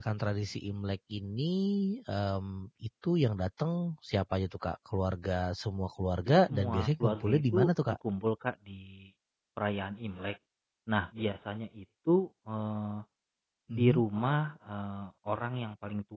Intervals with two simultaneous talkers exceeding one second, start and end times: 6.3-8.0

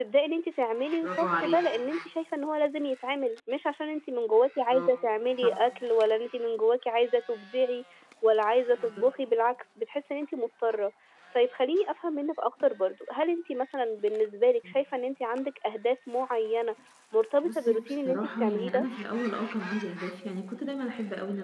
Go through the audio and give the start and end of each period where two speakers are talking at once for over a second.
17.4-18.9

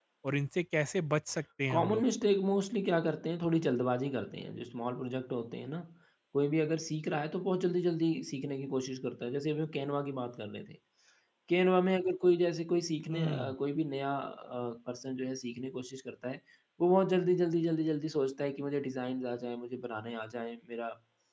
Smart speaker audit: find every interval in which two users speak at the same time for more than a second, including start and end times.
none

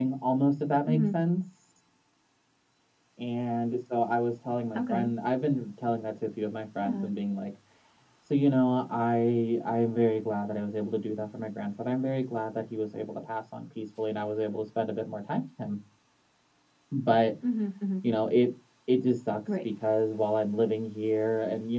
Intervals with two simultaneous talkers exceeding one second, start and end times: none

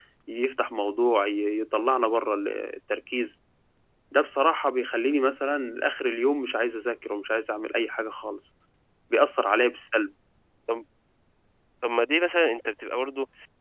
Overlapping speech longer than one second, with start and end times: none

